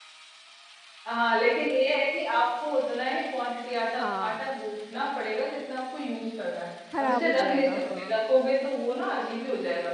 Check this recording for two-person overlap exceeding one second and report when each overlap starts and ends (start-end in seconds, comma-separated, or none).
7.0-8.2